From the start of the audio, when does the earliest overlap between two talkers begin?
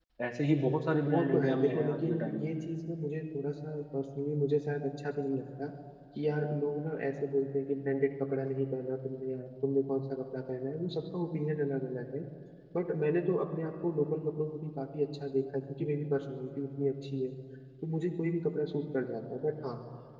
1 s

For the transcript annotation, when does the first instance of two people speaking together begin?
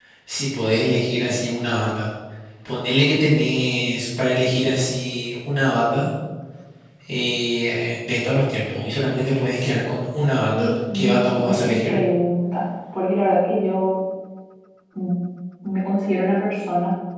11 s

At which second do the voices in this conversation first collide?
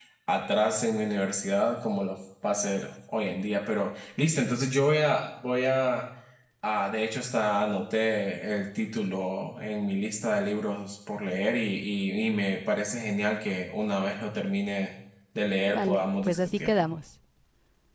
16 s

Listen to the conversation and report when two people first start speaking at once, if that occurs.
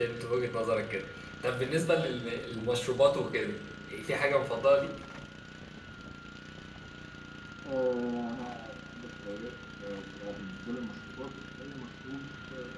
none

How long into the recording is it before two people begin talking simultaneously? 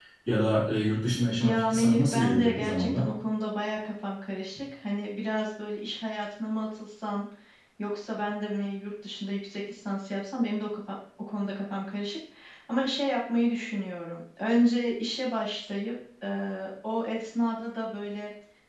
1 s

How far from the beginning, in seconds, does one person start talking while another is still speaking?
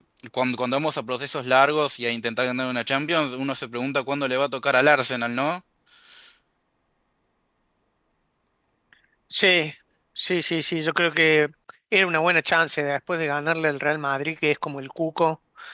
none

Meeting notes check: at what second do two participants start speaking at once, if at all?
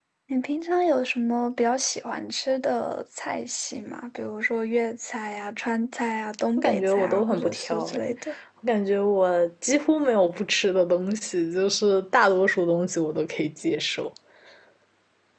7 s

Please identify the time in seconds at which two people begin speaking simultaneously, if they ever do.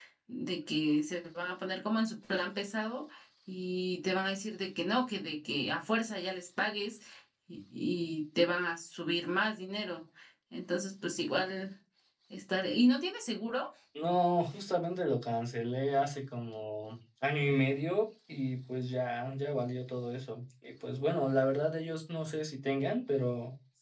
none

